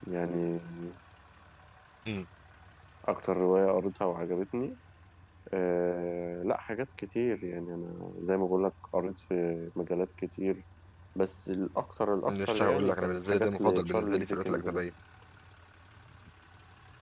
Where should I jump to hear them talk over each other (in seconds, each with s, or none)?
12.3 s